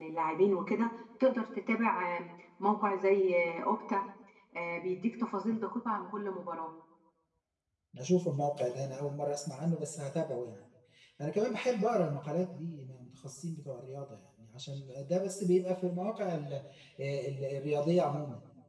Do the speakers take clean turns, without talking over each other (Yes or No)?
Yes